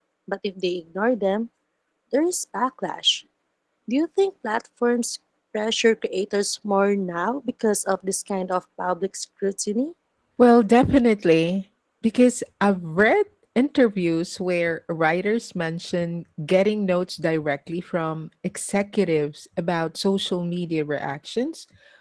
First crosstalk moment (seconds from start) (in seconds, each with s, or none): none